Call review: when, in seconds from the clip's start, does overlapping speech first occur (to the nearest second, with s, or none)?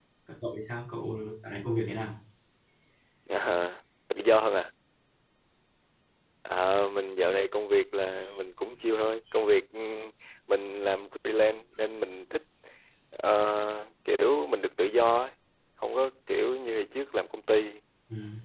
none